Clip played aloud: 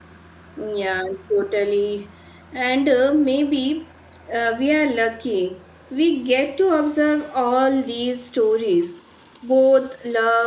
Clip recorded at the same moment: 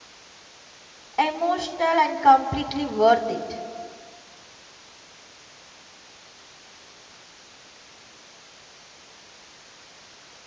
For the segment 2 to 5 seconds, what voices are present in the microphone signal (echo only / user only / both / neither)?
user only